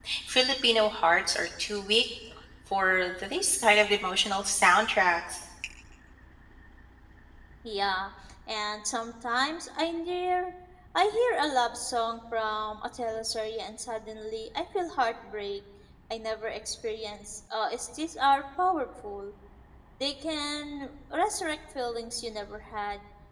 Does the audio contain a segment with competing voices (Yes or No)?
No